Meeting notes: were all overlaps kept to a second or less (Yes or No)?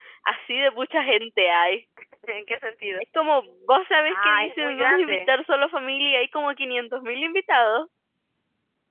No